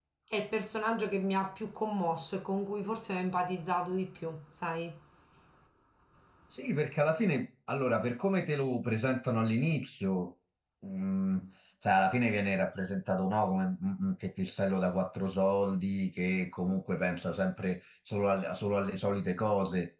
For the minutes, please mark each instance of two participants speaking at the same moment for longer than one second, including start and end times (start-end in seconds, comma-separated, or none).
none